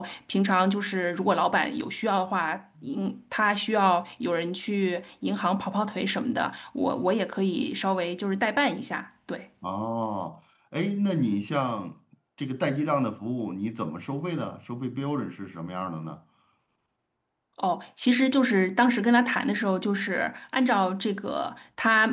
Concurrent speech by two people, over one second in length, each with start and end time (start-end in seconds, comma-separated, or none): none